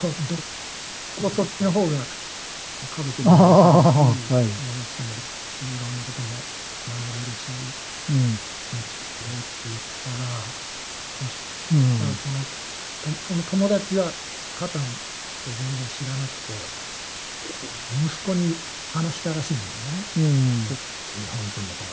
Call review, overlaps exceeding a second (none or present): present